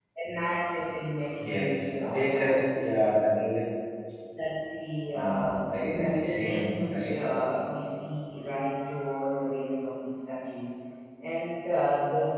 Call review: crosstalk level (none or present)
present